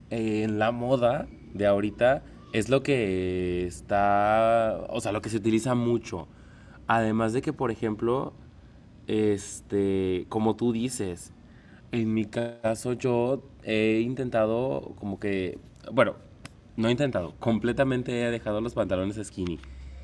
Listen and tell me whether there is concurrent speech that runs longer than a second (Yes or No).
No